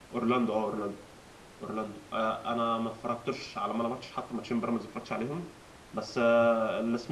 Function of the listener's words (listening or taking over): listening